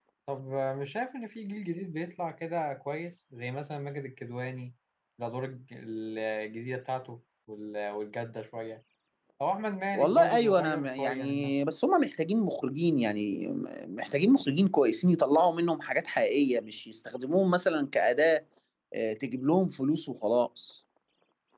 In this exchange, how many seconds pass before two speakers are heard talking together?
9.9 s

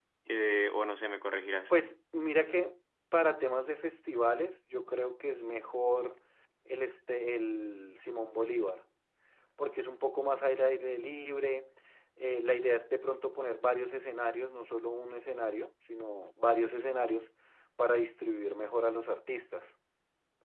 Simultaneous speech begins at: none

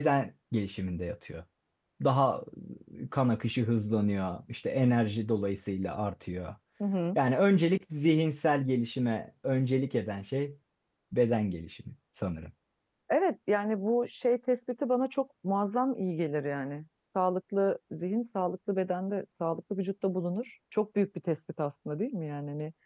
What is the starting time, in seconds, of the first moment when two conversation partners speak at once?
none

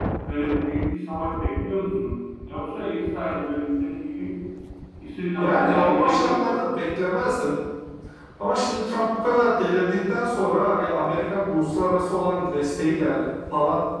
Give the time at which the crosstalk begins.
5.4 s

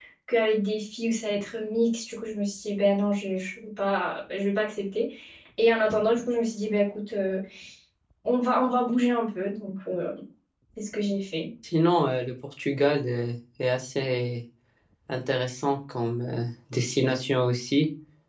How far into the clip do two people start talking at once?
none

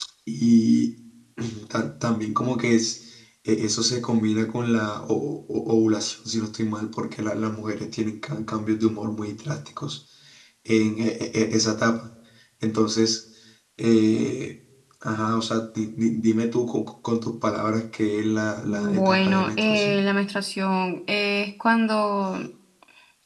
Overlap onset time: 18.7 s

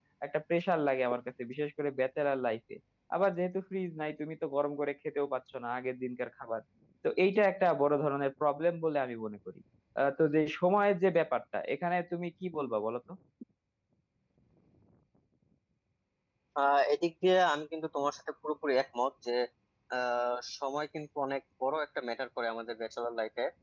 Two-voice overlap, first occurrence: none

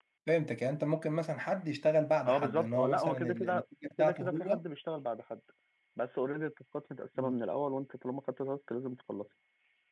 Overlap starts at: 2.2 s

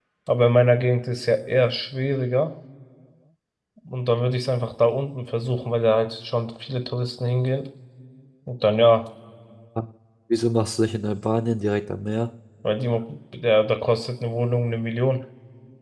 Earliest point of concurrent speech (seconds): none

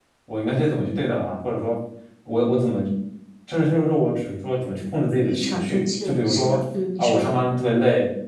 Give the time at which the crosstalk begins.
5.2 s

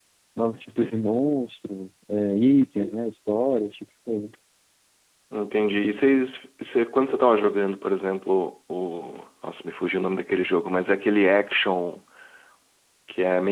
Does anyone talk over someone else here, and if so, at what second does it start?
none

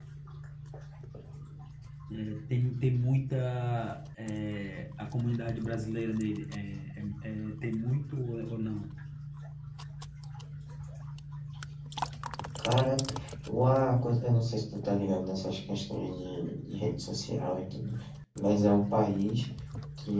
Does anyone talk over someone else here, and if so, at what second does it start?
none

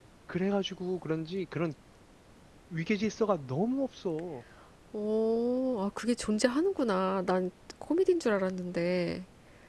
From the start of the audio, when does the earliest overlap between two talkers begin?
none

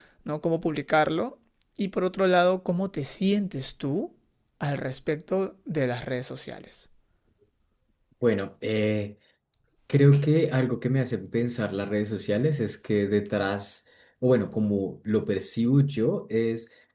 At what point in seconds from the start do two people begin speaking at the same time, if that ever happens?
none

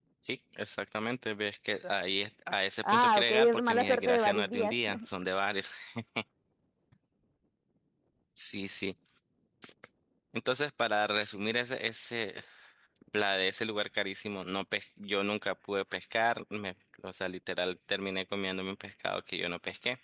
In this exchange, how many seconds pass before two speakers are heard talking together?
2.8 s

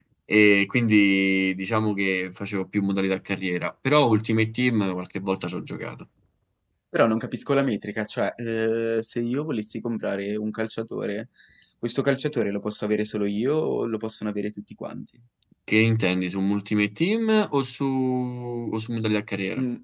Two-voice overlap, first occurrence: none

